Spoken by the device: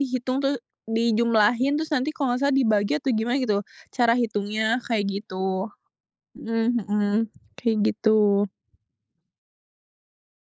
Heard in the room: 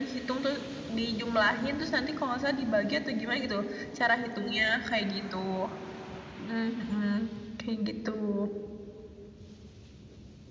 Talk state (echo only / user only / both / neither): echo only